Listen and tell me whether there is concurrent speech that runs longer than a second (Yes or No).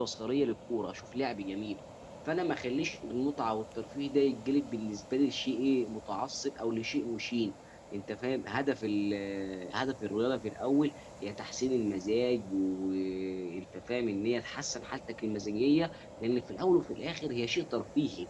No